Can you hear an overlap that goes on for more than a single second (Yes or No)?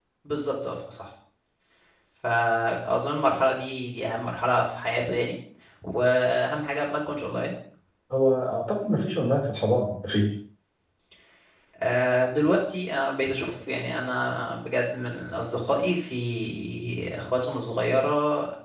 No